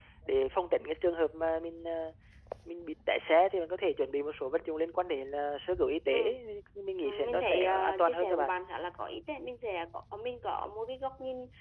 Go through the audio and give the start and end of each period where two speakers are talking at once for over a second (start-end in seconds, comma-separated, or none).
7.0-8.5